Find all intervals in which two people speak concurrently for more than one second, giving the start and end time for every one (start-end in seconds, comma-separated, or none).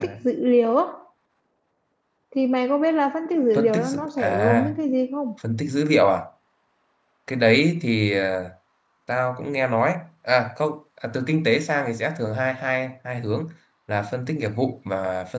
3.5-4.8